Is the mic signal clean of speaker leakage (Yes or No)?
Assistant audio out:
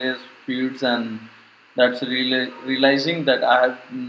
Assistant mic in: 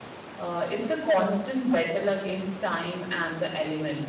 Yes